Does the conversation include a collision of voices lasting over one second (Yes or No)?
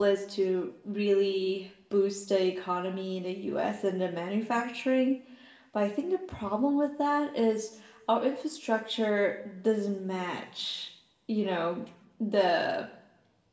No